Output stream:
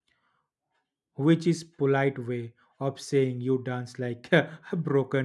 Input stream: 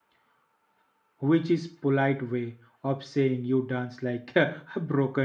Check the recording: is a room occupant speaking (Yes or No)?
No